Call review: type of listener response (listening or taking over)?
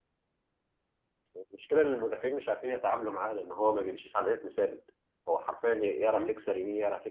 listening